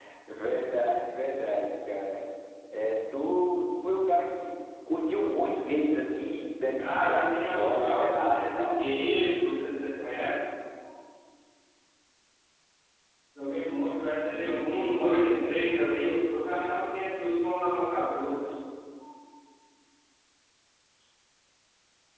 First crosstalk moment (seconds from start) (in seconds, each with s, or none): 6.9 s